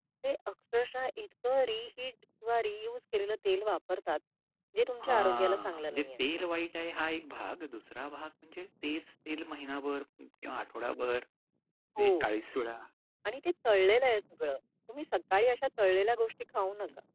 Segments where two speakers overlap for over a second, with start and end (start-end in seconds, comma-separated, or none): 5.0-6.2